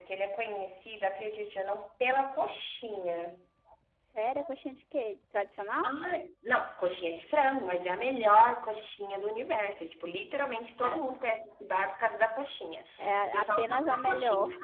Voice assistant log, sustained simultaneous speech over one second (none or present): present